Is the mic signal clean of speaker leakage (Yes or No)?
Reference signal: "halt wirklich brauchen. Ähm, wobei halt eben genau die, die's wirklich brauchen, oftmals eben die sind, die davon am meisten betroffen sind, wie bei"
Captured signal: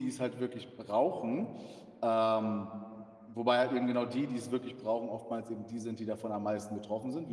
No